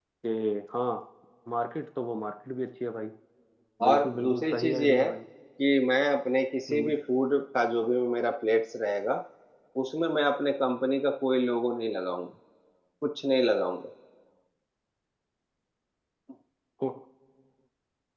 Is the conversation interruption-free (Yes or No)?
No